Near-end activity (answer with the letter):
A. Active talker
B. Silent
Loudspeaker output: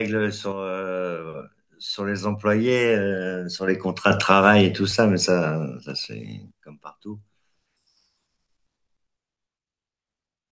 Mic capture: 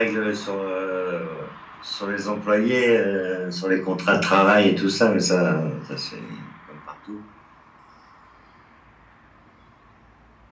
B